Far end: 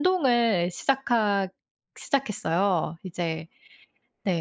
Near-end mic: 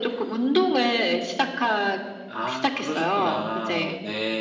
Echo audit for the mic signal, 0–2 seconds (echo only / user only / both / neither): echo only